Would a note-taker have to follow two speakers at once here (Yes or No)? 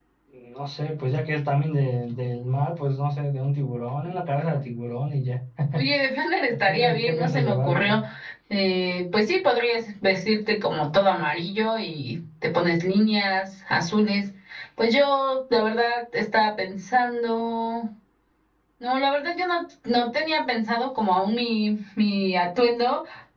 Yes